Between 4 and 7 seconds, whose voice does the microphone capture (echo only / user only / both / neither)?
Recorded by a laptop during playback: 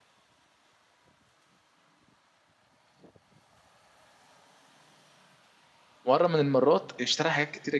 user only